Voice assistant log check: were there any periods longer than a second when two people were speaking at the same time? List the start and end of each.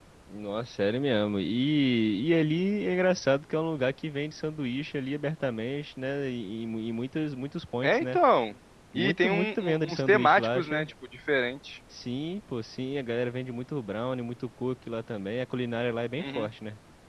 8.9-10.9

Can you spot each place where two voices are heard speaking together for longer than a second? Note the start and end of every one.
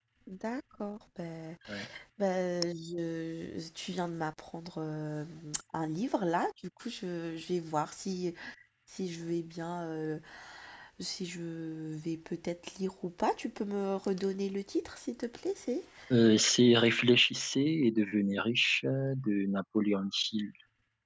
none

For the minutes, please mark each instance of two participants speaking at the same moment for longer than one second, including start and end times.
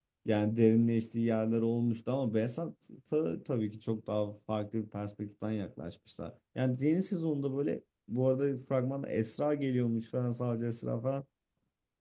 none

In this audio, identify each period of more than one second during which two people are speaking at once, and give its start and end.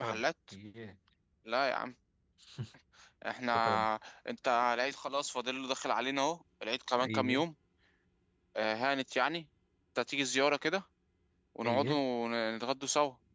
none

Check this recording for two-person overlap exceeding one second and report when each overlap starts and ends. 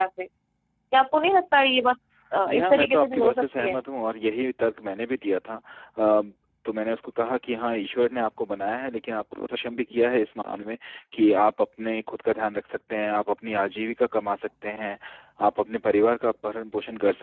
2.5-3.8

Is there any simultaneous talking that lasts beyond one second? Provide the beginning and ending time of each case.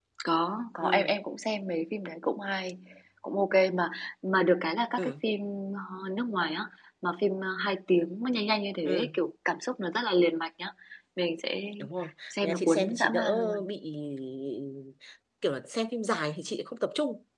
12.3-13.6

